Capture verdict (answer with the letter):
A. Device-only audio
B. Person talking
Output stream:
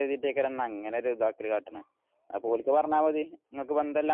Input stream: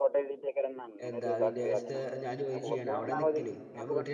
B